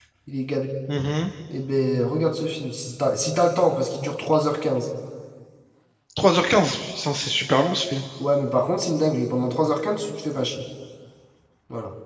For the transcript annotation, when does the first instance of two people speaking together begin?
none

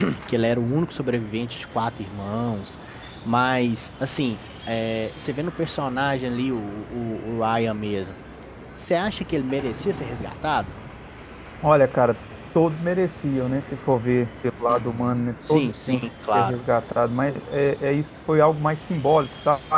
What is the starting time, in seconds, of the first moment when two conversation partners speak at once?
14.7 s

